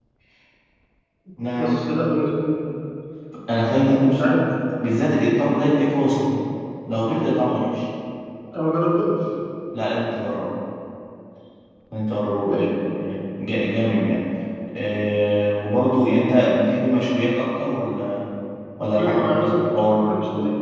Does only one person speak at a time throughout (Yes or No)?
No